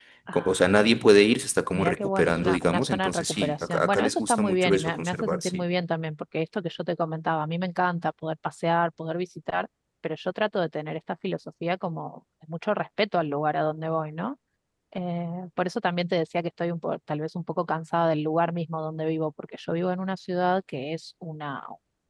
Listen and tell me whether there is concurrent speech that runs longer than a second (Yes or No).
Yes